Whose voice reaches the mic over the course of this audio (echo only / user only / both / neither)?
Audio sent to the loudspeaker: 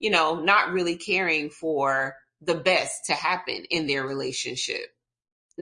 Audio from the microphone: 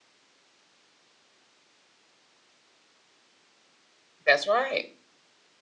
user only